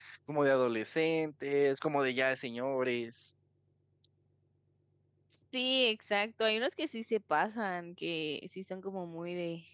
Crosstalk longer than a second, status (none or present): none